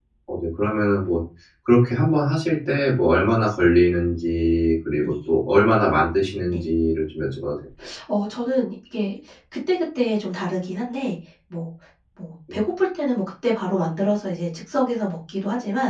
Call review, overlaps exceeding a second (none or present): none